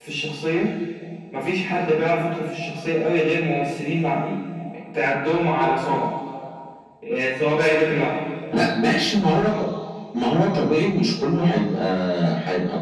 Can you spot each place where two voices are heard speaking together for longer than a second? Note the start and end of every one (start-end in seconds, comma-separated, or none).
none